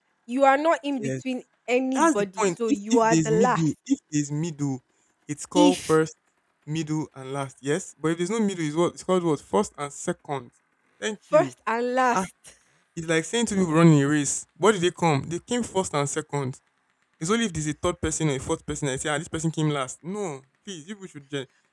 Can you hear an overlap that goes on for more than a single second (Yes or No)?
Yes